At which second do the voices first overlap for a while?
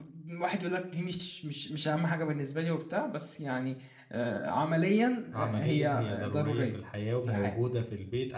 5.3 s

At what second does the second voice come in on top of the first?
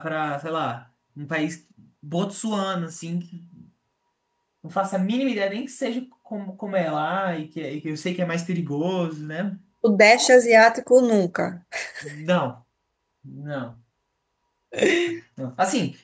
none

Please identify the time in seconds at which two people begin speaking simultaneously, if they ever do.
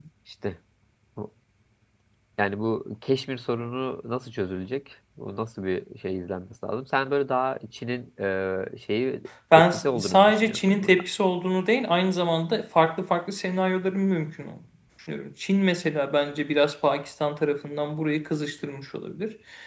9.5 s

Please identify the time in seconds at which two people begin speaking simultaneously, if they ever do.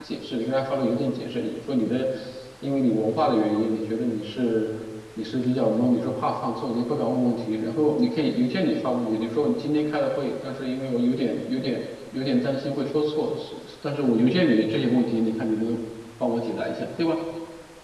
none

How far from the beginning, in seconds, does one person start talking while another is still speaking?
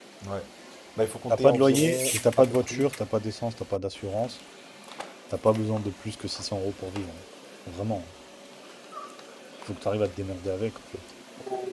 1.3 s

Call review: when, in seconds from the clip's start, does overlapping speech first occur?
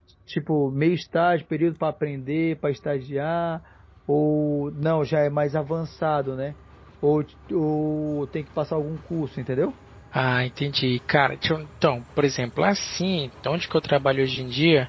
none

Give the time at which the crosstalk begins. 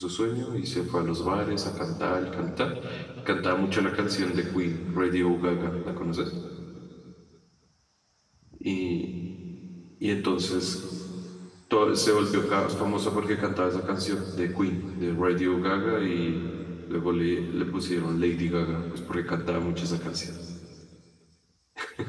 none

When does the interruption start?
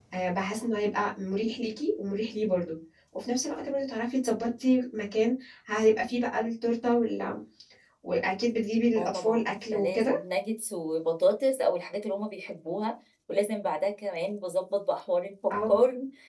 9.0 s

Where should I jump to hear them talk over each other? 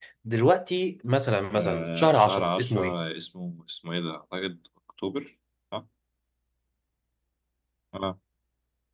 1.5 s

